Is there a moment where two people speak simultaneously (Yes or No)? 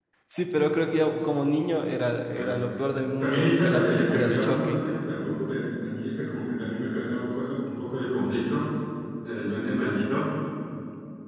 Yes